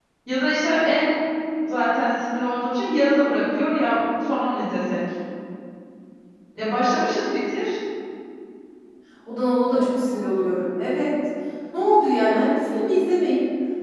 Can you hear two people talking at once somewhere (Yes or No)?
No